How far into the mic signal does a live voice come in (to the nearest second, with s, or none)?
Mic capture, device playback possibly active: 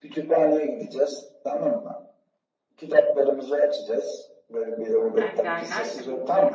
5 s